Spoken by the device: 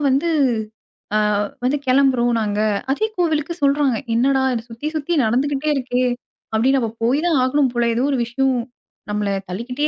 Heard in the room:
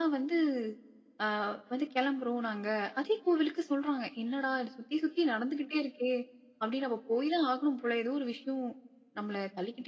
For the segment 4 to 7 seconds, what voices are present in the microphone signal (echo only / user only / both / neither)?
echo only